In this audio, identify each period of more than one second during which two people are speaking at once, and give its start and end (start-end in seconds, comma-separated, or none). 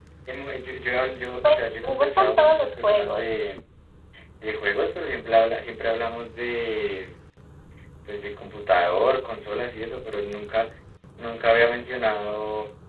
1.4-3.2